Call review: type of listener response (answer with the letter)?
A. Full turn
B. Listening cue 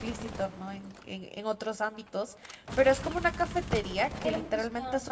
B